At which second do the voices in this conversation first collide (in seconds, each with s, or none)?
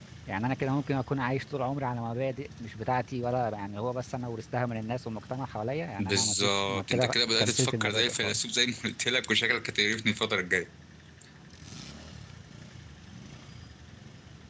6.0 s